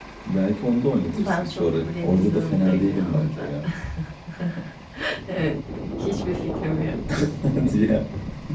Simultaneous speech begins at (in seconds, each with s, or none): 1.1 s